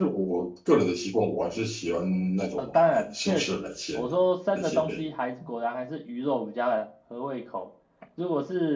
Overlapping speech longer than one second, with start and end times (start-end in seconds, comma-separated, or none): 2.6-4.1